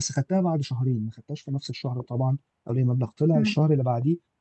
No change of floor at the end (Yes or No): Yes